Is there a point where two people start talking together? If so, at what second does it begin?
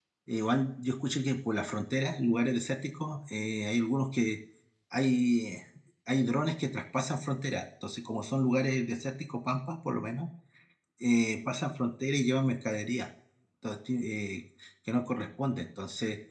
none

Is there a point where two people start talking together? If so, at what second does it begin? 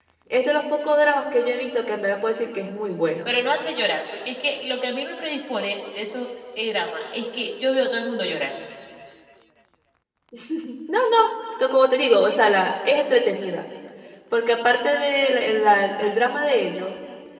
none

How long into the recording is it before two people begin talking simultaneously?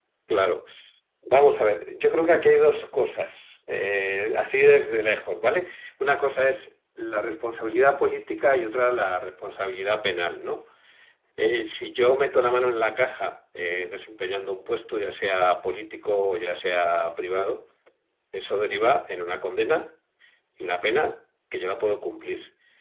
none

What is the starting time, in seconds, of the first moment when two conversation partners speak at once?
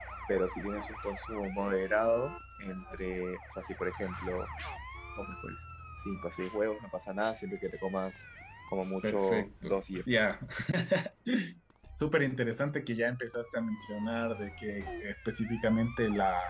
9 s

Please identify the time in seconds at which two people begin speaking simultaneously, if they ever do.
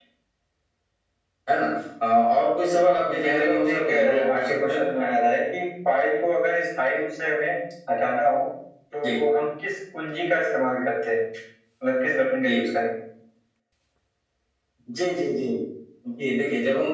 3 s

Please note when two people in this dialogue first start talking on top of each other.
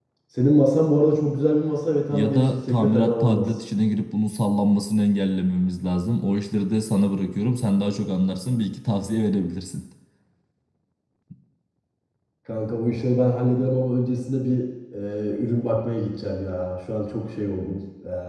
2 s

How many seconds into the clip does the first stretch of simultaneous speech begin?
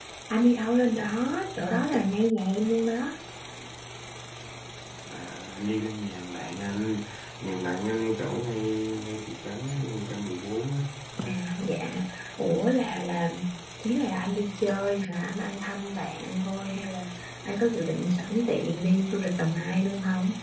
none

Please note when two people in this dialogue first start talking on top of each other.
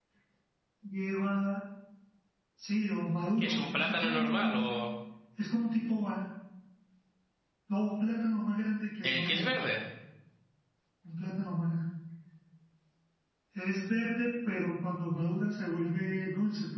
3 s

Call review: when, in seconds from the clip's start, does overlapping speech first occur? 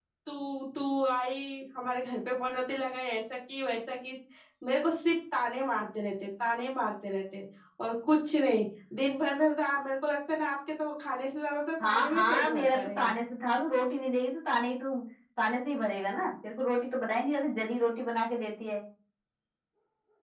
12 s

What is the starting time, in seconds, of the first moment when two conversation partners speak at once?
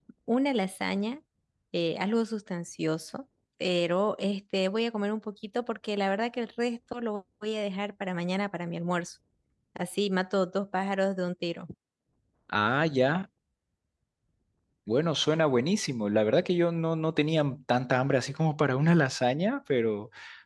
none

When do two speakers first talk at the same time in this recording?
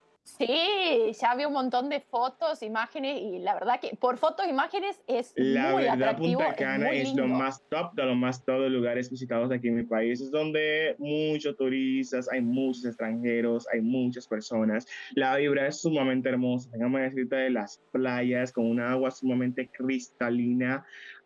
5 s

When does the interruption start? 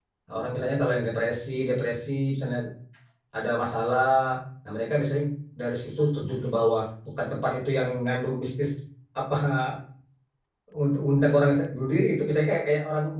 none

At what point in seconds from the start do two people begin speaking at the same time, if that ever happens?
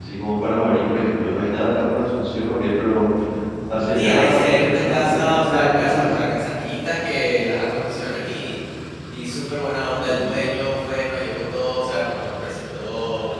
4 s

